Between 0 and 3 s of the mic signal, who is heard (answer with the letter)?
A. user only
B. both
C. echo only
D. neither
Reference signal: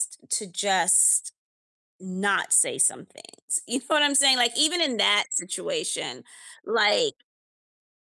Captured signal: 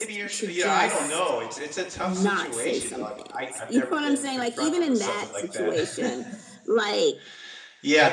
B